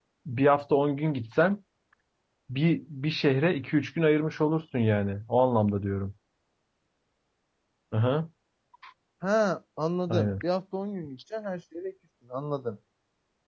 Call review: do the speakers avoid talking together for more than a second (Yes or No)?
Yes